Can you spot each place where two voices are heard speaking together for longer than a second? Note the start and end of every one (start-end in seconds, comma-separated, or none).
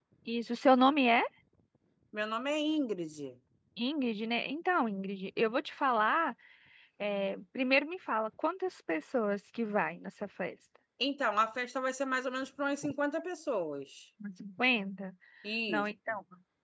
none